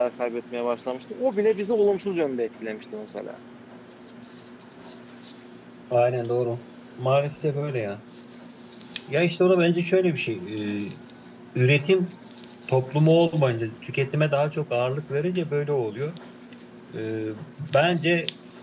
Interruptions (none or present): none